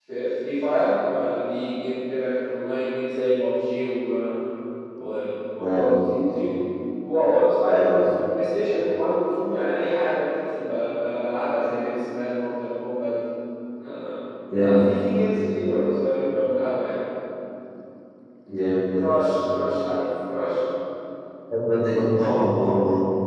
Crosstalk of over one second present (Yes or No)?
No